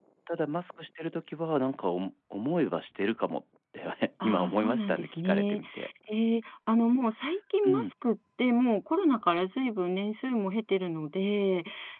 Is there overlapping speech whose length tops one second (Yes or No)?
Yes